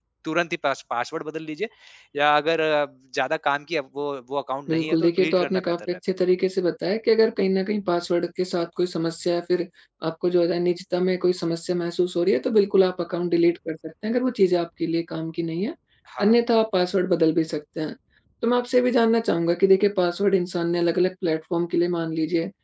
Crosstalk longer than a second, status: present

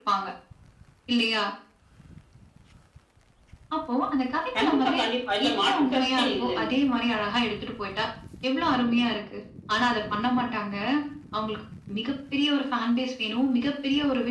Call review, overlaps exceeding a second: present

